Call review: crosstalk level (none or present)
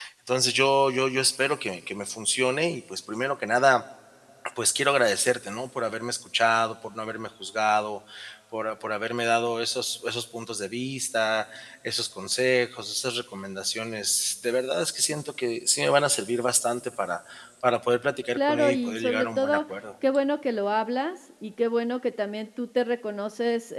present